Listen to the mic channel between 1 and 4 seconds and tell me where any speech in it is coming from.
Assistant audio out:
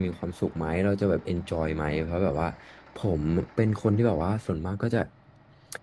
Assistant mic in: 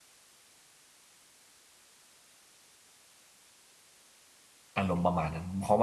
neither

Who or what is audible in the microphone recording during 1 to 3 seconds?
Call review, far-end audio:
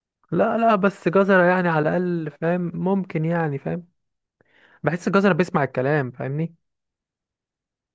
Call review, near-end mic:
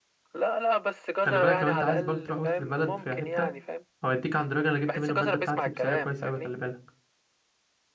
both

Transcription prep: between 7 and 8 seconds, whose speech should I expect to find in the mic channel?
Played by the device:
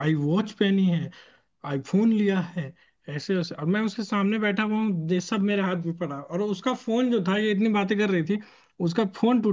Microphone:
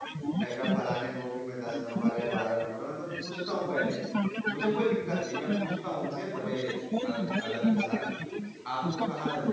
both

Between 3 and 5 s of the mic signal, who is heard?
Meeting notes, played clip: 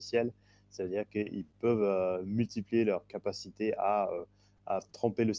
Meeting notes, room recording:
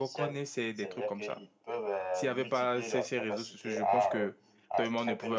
both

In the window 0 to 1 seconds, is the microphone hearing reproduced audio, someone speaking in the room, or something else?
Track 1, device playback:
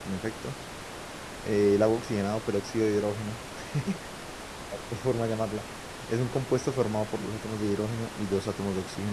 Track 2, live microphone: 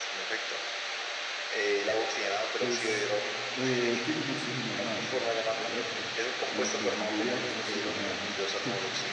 echo only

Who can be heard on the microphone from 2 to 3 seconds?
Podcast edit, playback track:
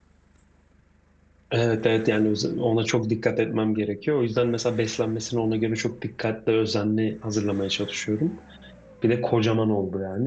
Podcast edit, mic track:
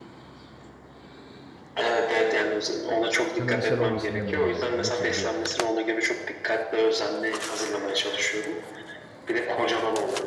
echo only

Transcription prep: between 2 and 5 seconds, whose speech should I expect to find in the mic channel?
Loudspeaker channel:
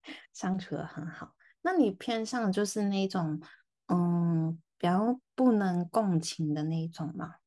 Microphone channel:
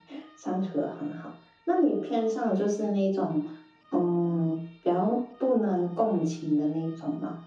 echo only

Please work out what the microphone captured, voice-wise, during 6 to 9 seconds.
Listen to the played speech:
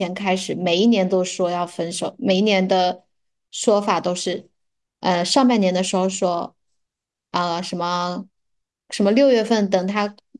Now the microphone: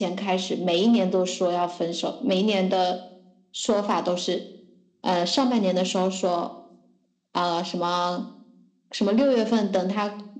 echo only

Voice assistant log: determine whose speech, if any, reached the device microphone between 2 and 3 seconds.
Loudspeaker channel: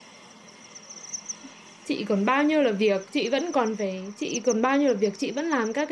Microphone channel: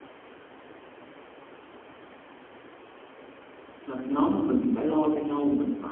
neither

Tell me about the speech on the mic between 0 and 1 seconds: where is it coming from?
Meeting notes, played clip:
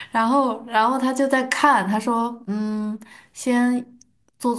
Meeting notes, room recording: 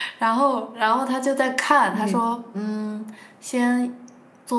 echo only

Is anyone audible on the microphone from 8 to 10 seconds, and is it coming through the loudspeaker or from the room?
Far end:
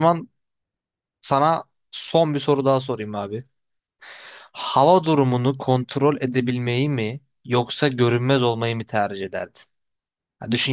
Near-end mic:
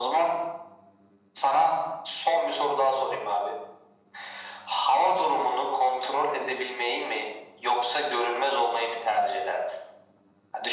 echo only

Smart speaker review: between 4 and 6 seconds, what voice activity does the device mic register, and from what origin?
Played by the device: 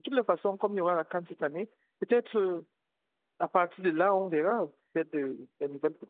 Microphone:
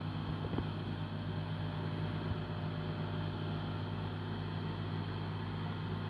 neither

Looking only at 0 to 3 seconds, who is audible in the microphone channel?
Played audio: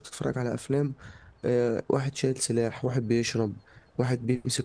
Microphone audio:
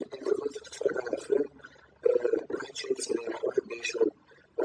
echo only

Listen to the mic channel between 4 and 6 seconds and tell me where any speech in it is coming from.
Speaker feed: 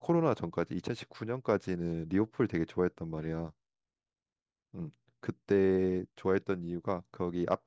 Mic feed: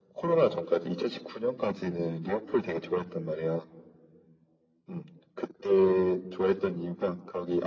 echo only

